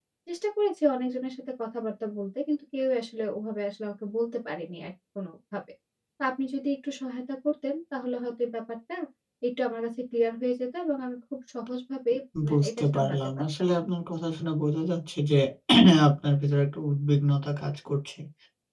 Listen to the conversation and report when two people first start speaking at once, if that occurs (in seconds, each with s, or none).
12.4 s